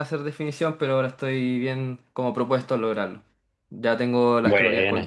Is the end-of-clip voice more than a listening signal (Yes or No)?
No